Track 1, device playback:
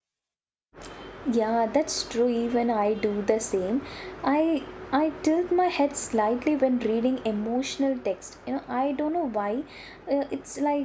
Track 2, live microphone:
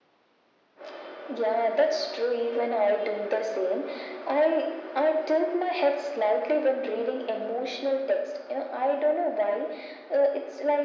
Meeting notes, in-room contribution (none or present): none